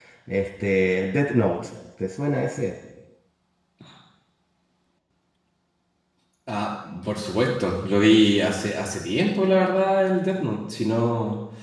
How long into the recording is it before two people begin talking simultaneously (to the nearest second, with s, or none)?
none